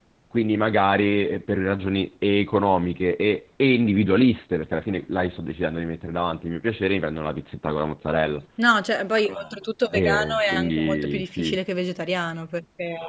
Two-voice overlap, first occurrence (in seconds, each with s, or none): 9.9 s